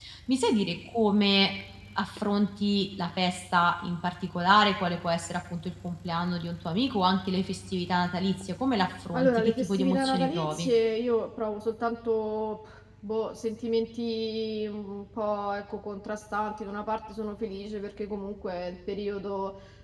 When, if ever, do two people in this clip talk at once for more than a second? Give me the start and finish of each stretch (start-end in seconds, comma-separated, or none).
9.1-10.7